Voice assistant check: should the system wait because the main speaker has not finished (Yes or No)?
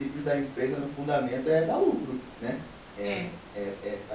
Yes